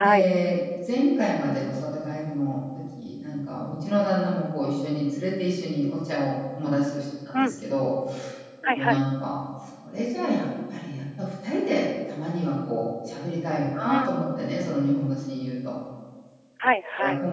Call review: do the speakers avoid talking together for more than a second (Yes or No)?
Yes